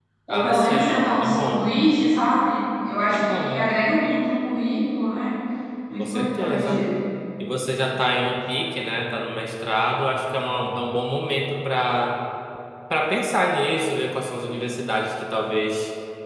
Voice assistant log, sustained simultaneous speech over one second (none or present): present